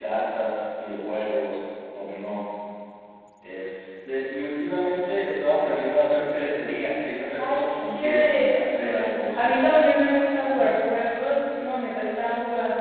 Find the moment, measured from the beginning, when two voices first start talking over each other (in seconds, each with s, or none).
7.4 s